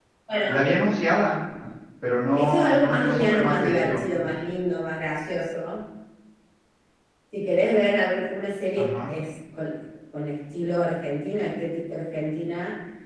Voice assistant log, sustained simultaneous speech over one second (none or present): present